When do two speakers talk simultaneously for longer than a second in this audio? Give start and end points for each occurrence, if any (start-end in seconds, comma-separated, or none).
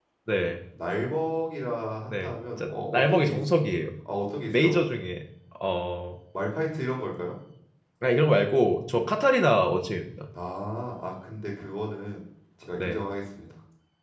2.1-3.4